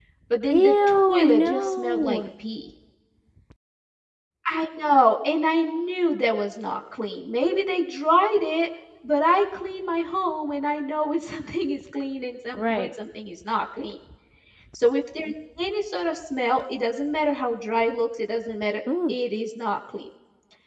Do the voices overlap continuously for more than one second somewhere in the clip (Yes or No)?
Yes